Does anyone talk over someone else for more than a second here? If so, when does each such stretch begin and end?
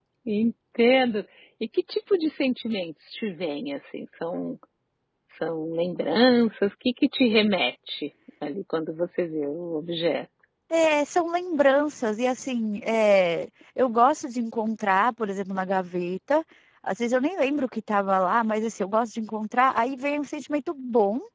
none

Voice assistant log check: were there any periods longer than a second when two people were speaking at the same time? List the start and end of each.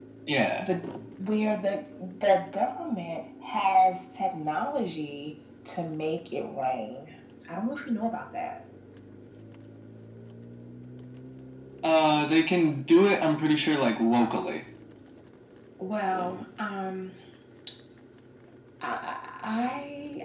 none

